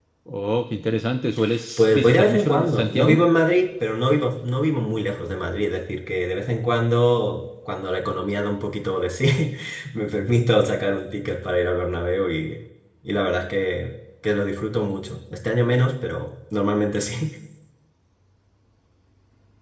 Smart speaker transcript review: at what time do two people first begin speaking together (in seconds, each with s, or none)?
1.8 s